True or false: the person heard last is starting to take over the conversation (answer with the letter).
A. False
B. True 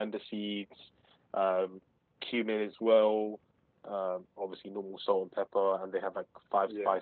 A